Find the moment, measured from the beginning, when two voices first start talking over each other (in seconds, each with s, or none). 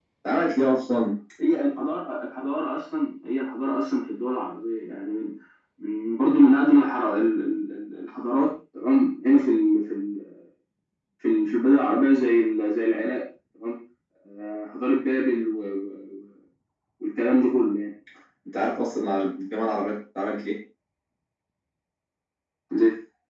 none